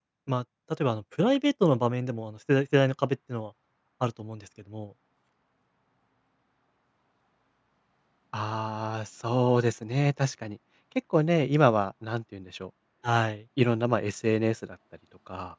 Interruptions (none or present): none